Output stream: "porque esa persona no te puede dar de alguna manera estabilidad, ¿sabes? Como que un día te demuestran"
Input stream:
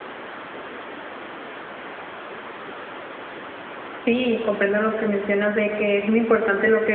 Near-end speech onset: 4 s

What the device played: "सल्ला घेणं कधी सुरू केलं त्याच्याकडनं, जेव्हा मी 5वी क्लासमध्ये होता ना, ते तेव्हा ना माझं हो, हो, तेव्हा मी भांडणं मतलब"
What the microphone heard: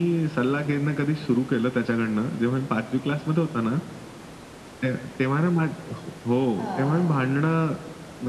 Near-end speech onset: 7 s

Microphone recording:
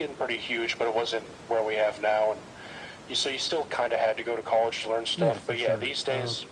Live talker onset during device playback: 5 s

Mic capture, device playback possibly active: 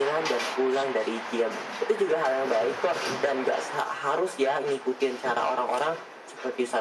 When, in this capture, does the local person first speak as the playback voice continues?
none

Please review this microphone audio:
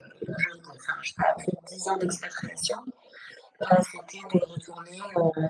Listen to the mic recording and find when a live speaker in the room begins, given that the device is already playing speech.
none

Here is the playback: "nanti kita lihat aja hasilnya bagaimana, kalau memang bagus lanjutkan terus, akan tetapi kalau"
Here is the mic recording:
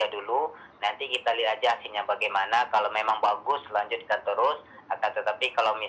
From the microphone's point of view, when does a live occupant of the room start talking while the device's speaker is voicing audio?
none

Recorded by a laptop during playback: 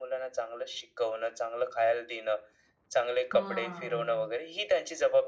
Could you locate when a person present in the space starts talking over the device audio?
3 s

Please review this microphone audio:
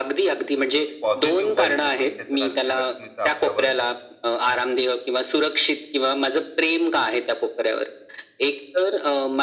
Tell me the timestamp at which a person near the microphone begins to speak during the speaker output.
1 s

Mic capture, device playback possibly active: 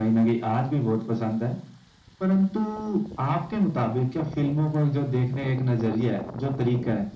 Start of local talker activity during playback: none

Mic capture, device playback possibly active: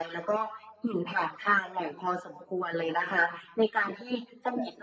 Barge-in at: none

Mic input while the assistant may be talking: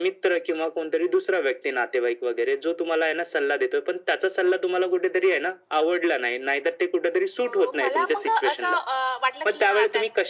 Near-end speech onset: 7 s

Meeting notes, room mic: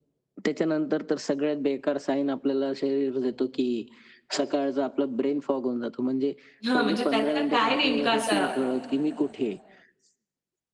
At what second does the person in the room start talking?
7 s

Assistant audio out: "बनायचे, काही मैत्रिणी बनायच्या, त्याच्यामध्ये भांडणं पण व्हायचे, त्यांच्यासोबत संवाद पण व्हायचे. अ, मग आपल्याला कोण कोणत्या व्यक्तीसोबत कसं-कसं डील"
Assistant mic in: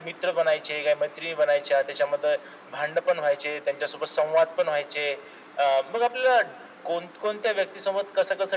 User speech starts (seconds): none

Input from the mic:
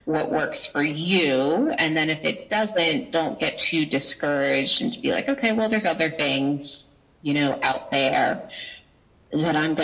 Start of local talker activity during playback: none

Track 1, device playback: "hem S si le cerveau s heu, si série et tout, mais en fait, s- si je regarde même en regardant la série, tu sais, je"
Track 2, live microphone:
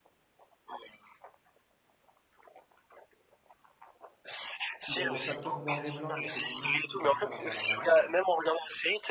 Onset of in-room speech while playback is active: 5 s

